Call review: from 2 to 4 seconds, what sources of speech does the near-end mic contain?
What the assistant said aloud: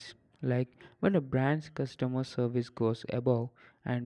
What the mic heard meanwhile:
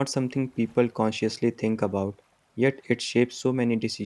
user only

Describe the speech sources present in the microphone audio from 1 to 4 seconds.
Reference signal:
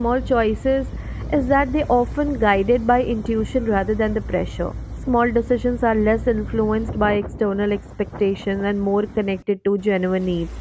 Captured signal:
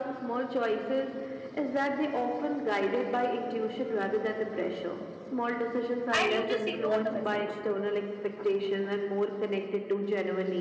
echo only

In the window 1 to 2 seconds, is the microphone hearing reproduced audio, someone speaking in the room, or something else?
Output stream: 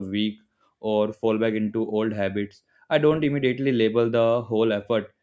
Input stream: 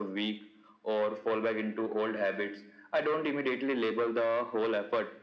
echo only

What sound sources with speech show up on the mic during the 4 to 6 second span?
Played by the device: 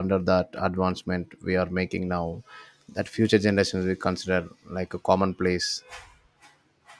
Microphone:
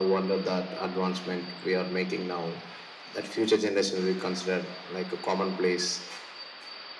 echo only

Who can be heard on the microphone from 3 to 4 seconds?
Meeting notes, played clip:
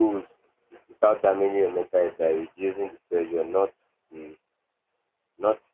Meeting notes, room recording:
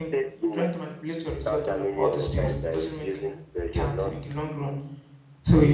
both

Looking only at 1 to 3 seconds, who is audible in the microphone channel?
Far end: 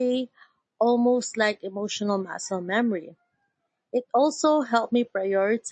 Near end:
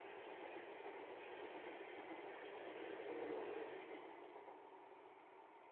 neither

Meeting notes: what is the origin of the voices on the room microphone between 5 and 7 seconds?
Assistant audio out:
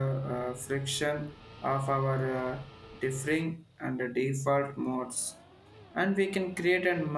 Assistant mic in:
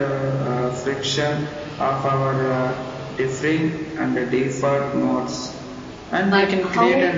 both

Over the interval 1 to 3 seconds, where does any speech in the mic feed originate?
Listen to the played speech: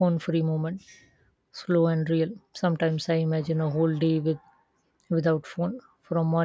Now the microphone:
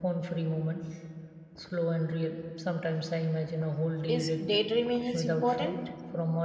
echo only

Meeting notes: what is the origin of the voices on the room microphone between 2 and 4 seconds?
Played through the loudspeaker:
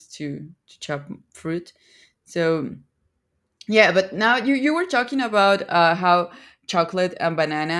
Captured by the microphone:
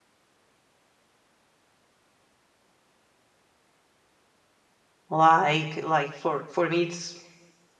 neither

